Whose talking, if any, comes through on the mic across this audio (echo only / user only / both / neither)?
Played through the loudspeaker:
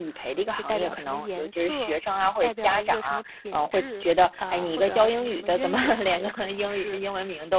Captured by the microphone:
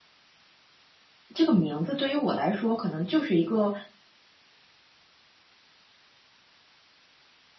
user only